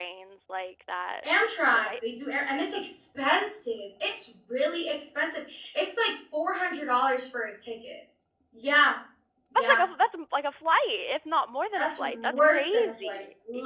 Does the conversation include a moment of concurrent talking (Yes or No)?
Yes